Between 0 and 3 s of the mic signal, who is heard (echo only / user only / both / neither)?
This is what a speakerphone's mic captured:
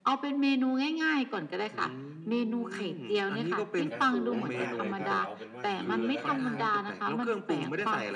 echo only